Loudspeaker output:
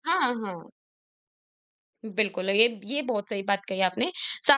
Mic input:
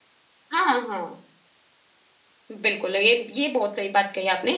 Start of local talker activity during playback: none

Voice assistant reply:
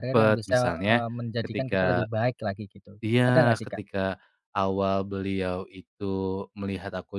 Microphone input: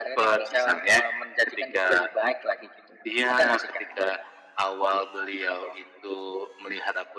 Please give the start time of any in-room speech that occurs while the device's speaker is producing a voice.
none

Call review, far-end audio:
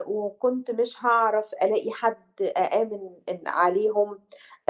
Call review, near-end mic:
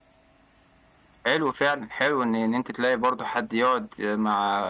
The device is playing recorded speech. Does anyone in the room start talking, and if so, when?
1.2 s

